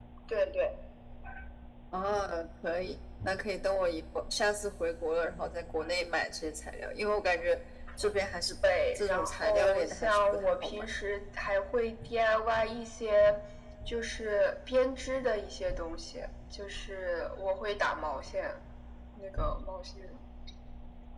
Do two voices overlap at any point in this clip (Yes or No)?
Yes